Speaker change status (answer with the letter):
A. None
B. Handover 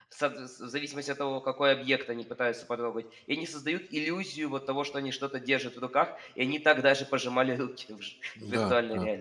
B